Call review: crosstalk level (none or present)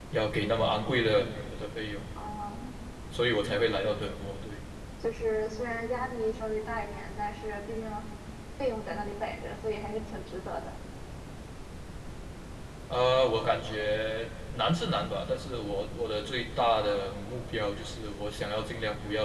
none